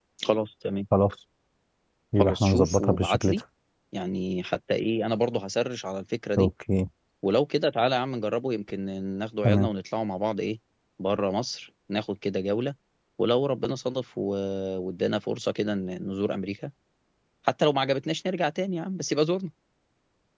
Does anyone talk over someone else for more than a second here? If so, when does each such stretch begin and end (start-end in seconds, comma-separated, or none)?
2.2-3.4